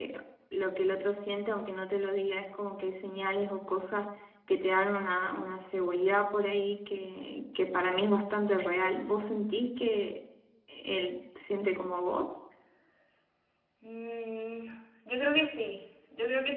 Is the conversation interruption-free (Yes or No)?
Yes